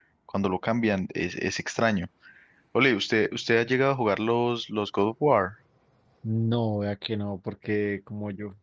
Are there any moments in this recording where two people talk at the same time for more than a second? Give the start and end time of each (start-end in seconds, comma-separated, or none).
none